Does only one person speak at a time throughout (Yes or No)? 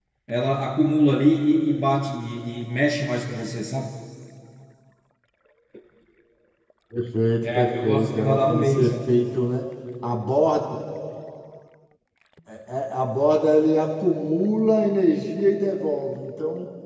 No